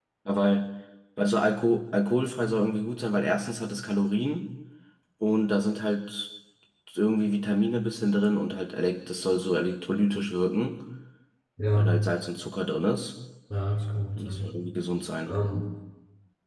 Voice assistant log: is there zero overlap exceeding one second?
Yes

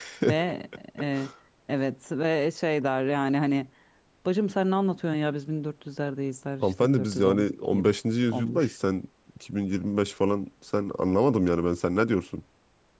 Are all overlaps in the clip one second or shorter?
No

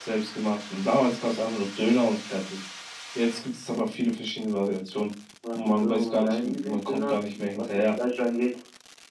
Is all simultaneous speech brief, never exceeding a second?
No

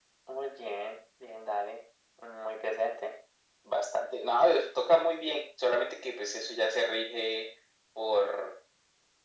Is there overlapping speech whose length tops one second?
No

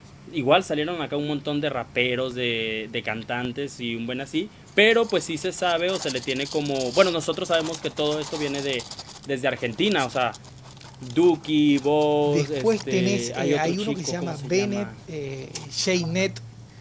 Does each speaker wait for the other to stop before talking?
No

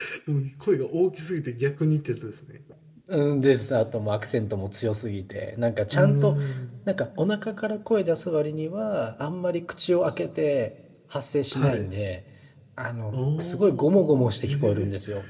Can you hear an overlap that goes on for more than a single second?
Yes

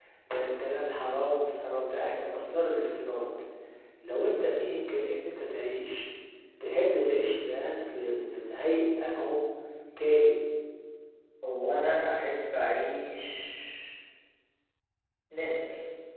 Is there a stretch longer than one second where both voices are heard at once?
No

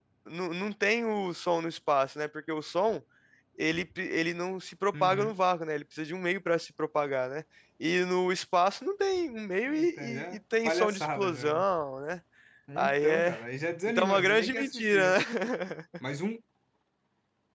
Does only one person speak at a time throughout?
No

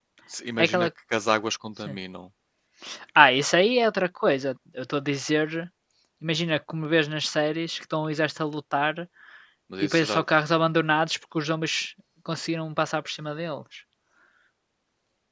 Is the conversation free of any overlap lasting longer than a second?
Yes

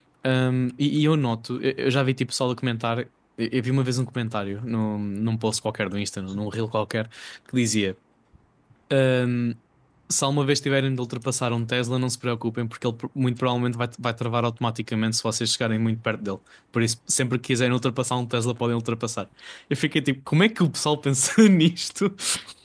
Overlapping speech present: No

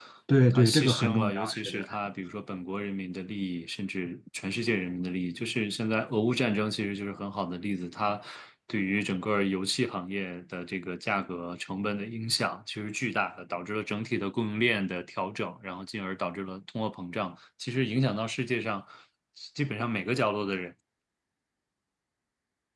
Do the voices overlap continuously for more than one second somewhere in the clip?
Yes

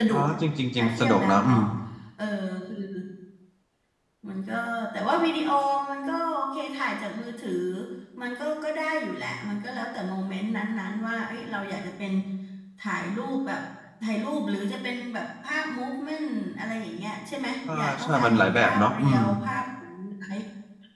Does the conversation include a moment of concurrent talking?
Yes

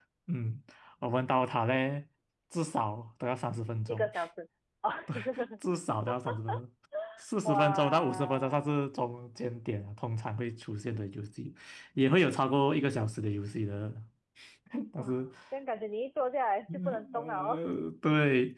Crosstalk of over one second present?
Yes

